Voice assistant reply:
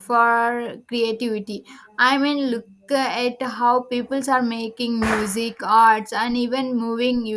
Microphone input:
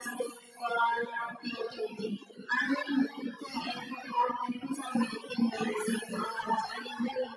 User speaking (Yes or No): No